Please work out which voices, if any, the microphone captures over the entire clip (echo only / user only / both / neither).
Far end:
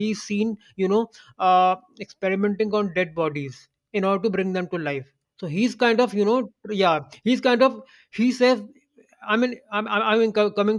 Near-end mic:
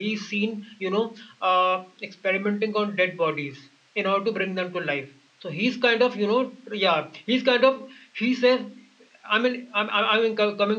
echo only